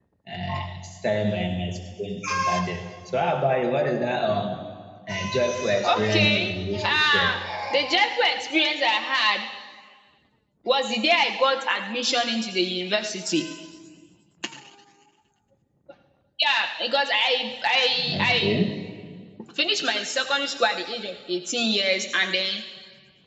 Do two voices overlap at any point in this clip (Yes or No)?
Yes